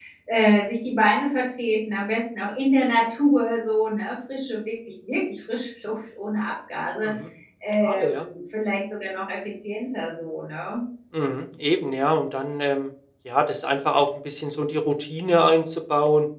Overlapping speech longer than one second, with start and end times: none

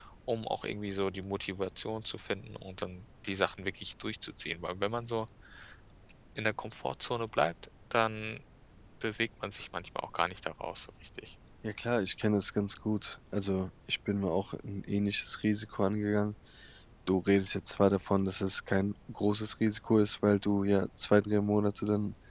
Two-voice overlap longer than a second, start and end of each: none

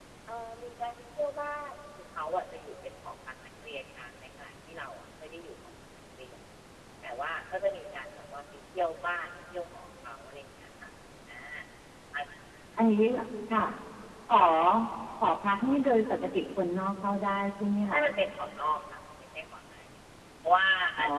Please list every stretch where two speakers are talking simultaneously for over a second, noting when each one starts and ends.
none

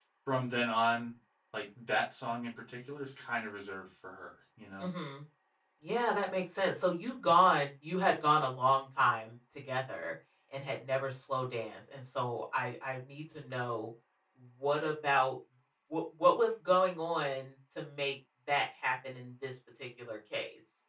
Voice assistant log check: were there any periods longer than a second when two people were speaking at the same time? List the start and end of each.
none

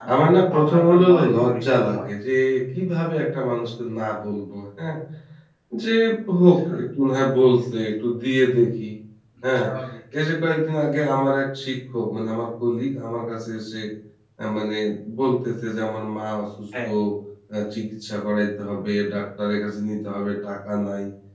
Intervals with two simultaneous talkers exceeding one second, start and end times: 0.5-2.1

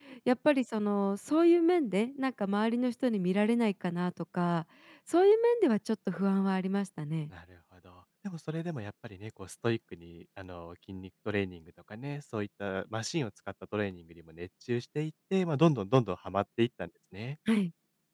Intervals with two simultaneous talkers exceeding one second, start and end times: none

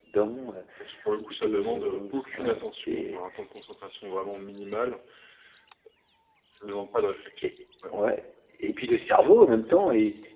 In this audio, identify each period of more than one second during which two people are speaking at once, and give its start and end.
1.3-3.2

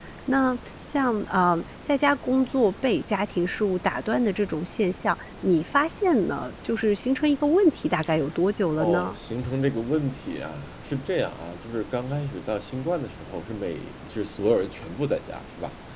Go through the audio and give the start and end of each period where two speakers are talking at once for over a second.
none

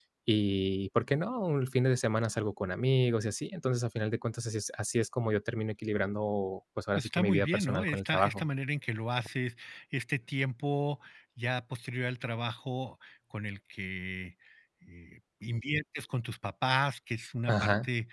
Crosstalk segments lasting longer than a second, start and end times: 7.0-8.4

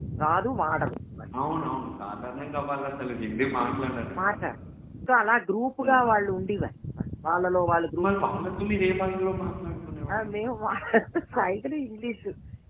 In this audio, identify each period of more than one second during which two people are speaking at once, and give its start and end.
none

